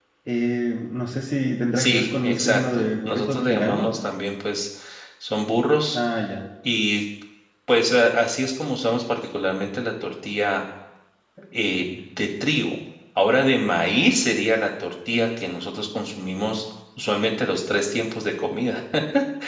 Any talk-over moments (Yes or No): Yes